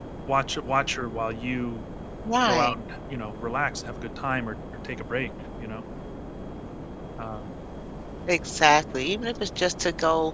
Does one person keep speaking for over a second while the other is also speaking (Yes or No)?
No